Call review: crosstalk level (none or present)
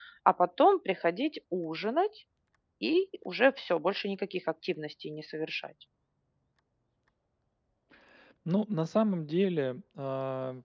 none